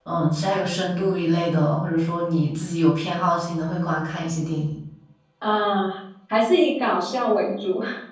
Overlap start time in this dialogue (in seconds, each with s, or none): none